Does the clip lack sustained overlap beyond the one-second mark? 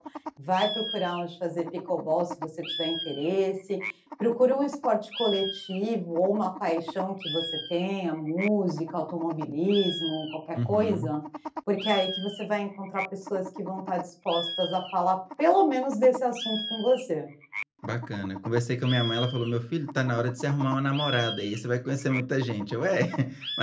Yes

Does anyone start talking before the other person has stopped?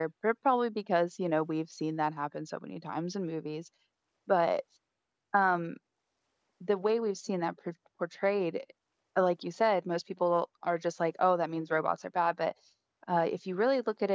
No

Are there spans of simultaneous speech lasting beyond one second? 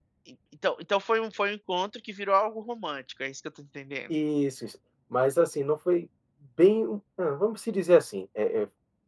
No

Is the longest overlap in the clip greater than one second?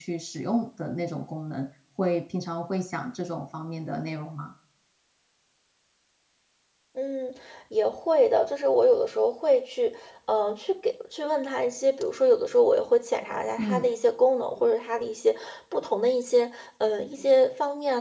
No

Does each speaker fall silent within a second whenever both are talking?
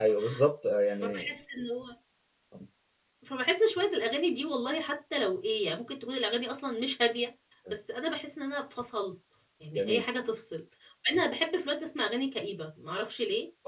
Yes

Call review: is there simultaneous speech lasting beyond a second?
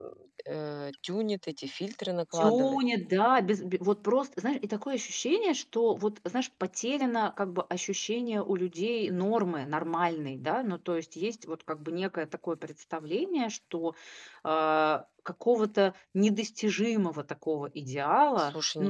No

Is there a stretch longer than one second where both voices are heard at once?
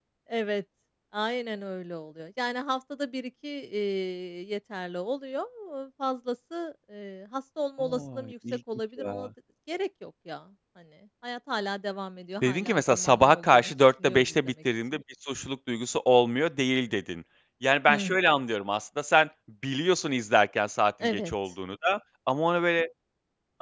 Yes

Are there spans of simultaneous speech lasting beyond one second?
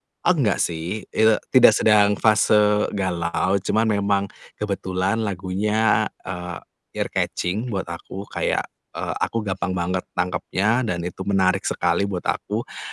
No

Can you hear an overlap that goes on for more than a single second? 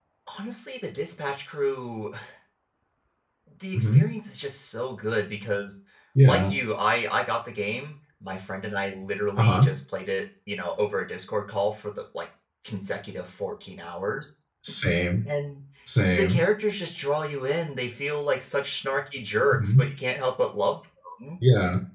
No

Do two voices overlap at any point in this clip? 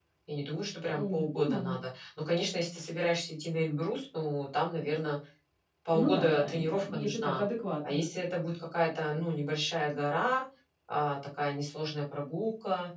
Yes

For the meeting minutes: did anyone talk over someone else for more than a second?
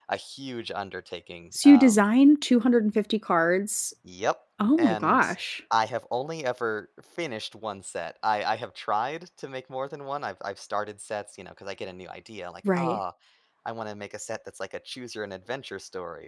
No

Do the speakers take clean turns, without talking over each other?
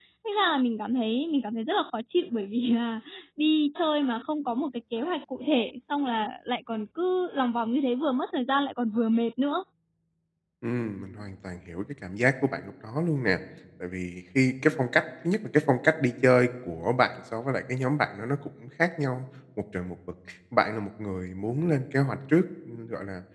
Yes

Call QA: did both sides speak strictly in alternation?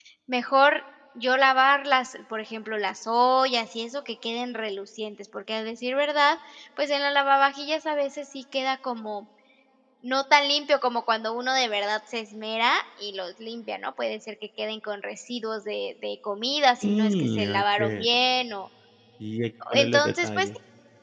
No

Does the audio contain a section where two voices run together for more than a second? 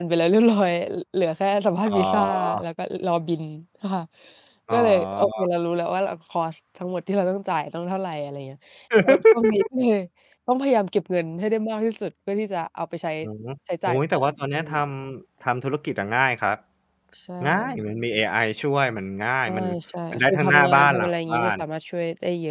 Yes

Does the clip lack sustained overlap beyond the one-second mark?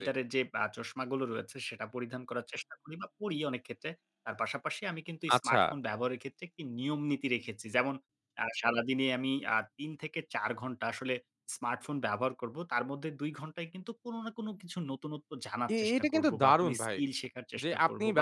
No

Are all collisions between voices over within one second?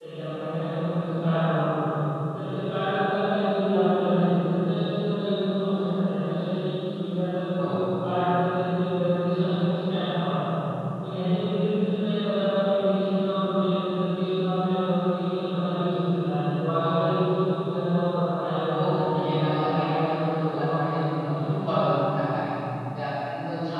No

